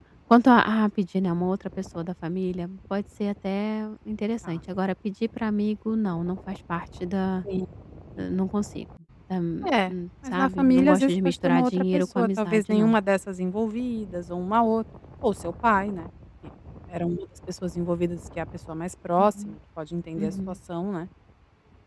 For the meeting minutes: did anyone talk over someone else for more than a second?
Yes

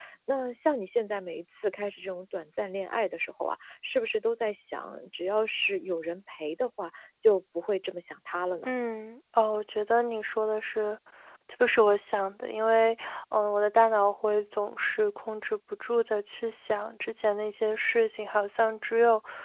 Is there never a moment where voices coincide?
Yes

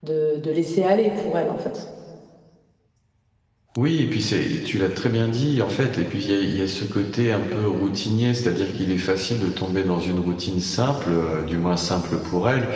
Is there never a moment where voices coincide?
Yes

